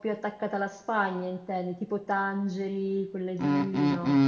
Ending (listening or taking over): taking over